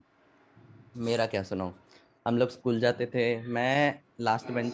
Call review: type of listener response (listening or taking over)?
listening